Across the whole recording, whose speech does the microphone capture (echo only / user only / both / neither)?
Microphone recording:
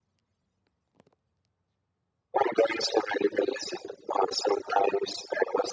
echo only